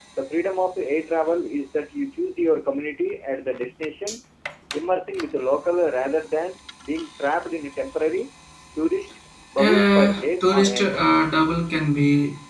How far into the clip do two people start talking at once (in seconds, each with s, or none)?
9.6 s